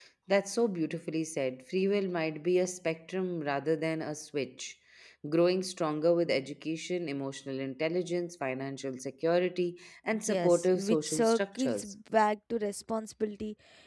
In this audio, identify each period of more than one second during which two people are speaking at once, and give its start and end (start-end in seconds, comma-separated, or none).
10.2-11.9